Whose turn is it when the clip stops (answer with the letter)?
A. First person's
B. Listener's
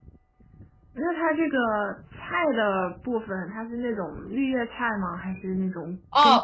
B